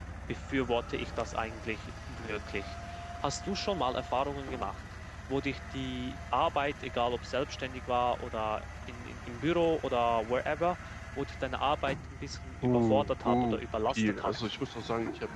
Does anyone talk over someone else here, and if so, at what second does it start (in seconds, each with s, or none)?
12.6 s